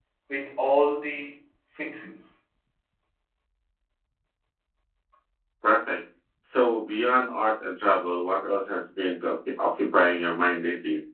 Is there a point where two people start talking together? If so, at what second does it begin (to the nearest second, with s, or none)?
none